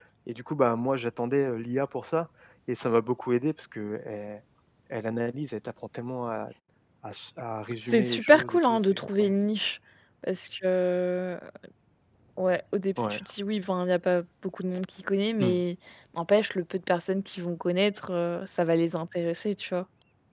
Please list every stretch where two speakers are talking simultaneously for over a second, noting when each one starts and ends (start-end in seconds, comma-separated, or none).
7.9-9.3